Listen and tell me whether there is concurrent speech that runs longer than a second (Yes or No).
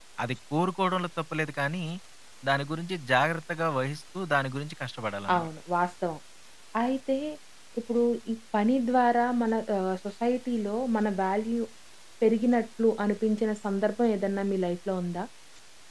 No